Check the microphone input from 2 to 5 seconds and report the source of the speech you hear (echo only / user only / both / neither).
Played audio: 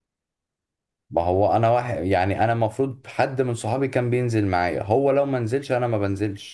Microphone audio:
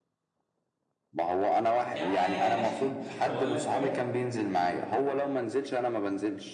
both